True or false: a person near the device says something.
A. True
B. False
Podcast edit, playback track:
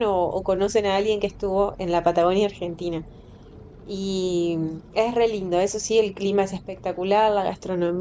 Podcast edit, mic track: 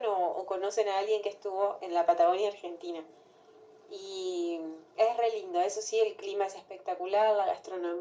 B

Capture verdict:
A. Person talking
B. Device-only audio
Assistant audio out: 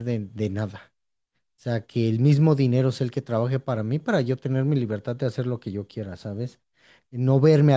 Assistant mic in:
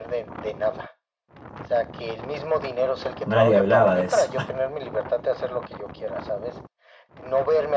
A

